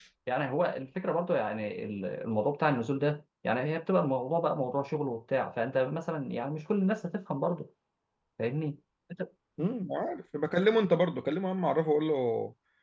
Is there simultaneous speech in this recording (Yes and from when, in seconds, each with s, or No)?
No